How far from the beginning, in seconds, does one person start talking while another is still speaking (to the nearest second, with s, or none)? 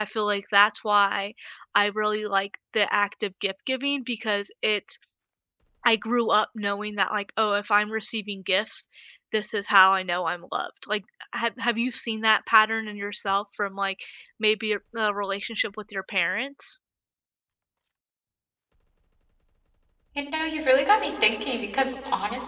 none